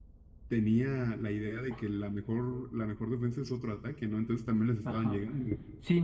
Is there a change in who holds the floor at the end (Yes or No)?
Yes